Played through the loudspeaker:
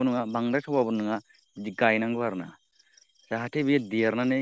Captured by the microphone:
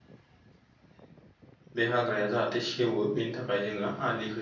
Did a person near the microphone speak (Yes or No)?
Yes